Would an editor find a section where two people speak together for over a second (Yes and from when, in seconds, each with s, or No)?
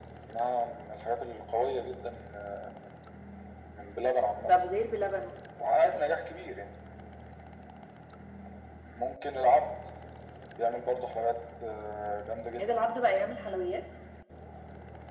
No